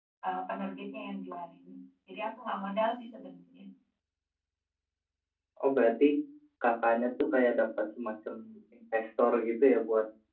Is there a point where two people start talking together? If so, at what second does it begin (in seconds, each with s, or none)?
none